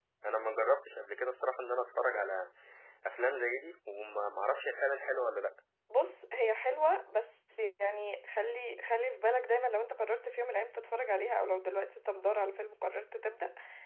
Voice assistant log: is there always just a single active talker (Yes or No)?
Yes